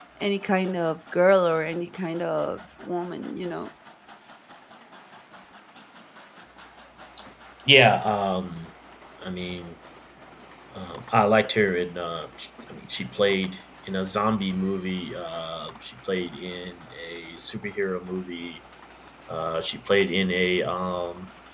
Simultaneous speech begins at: none

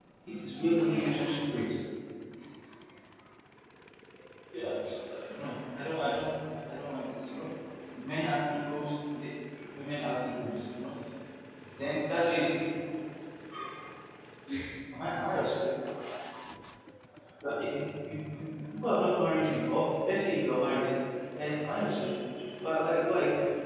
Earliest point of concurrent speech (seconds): 0.5 s

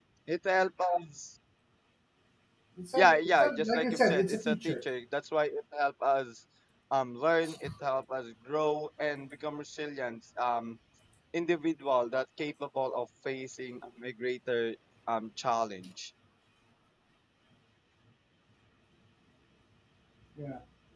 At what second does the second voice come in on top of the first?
3.0 s

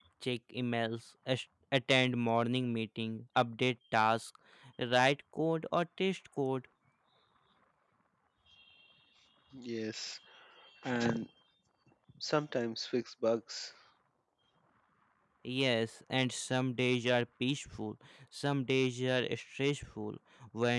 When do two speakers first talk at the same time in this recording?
none

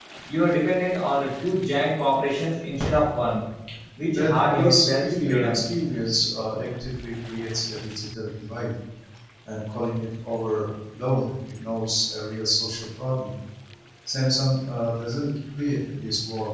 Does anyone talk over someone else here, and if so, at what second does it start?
4.1 s

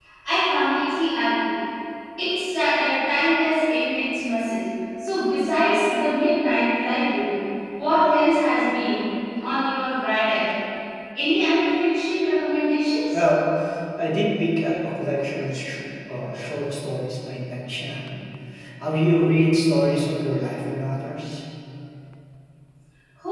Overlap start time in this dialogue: none

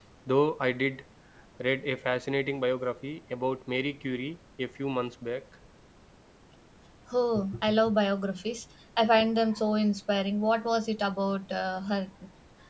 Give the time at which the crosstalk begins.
none

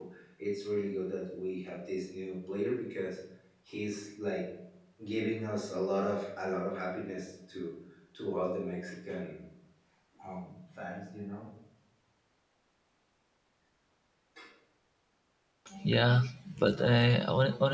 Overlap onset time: none

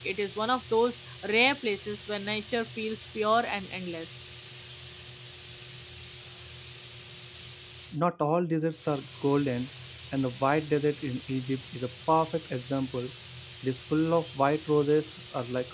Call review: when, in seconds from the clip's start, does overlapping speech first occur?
none

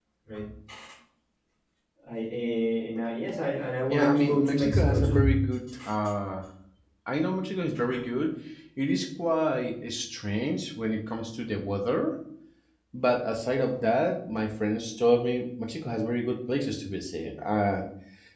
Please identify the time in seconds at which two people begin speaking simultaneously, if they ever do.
3.9 s

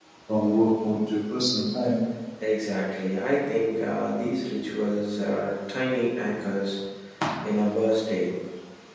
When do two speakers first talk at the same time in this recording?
none

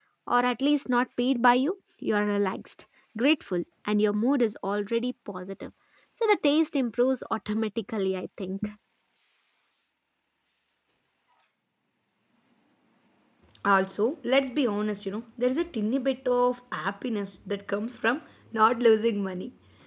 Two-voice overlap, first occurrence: none

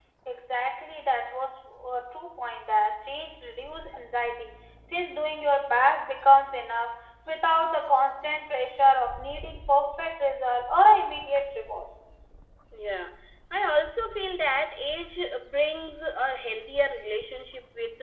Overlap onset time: none

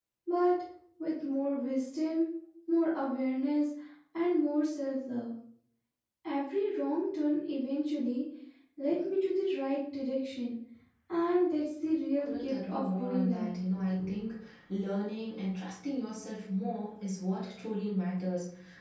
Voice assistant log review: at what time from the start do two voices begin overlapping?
12.2 s

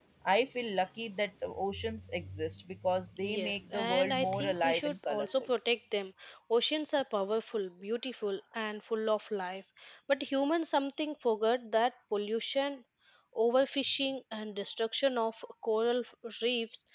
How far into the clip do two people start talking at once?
3.2 s

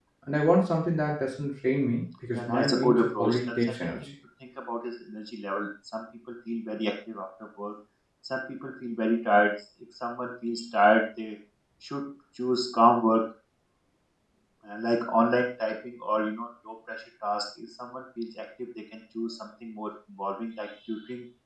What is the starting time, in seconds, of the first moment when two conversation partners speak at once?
2.3 s

